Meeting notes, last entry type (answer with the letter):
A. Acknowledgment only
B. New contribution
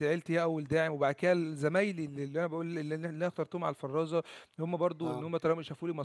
A